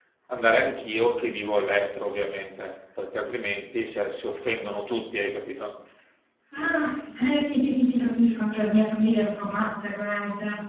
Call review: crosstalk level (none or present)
none